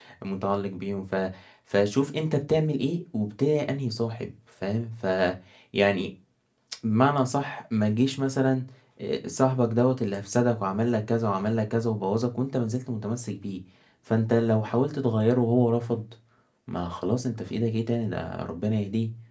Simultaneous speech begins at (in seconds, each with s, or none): none